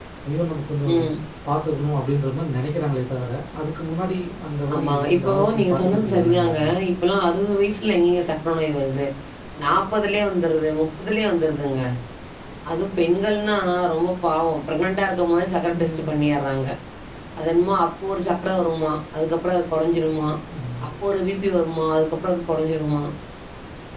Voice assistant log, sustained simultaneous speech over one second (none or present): present